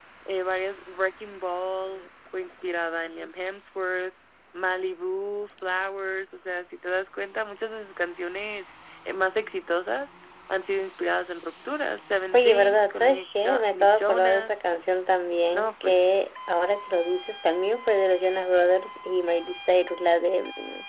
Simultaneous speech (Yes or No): Yes